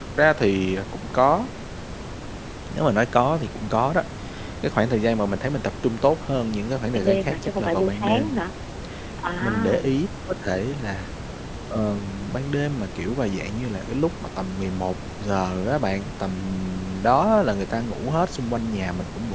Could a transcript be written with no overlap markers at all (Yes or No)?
No